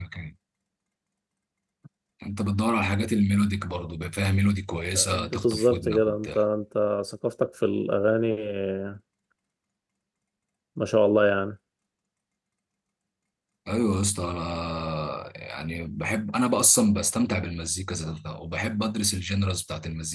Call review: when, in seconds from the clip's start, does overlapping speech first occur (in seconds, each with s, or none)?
5.0 s